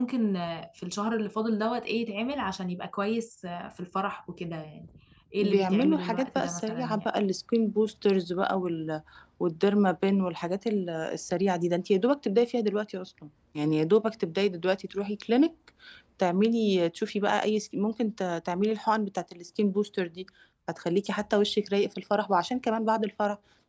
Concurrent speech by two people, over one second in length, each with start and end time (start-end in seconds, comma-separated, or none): 5.4-7.1